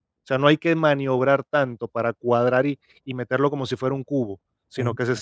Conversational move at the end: listening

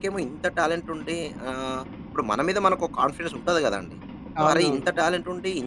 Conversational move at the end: listening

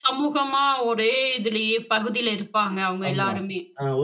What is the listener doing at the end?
taking over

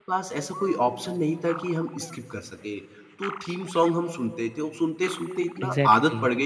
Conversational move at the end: listening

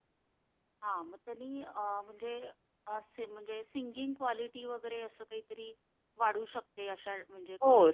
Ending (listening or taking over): taking over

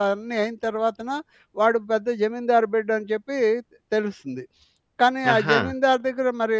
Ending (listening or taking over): listening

